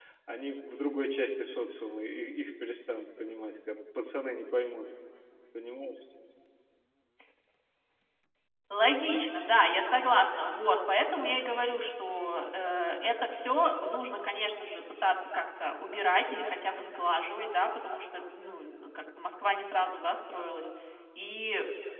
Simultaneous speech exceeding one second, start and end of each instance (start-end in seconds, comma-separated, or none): none